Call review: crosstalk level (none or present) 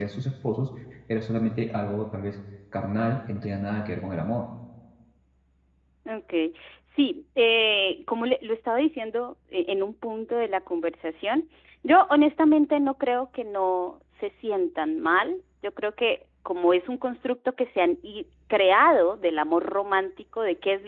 none